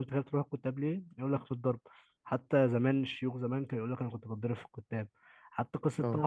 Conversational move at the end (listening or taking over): listening